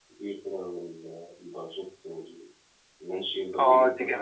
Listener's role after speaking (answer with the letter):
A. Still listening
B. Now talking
B